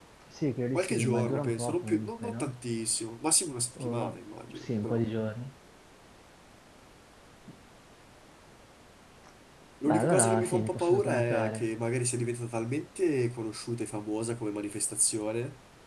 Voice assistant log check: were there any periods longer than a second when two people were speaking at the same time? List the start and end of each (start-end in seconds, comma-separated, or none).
0.8-2.5, 3.8-5.0, 9.8-11.7